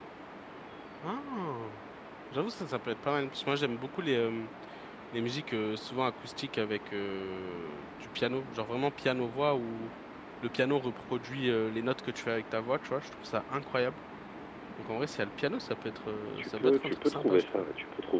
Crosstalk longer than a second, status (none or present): present